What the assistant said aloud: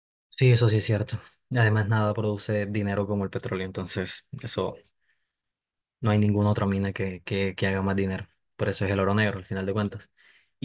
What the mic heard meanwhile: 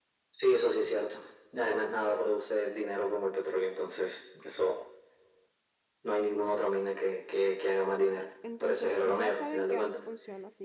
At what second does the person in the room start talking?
8 s

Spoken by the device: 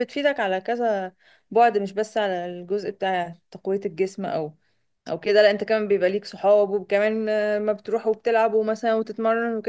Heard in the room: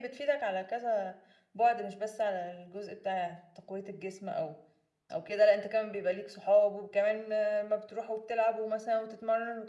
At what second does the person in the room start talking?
none

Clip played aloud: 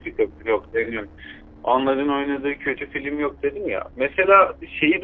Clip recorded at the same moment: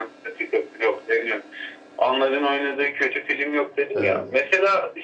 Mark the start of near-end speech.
4 s

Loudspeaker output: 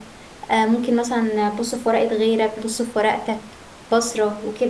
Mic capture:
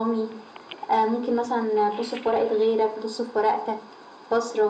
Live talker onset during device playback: none

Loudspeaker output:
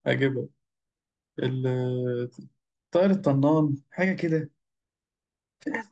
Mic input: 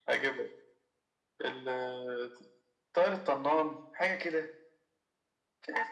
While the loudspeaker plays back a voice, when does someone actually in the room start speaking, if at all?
none

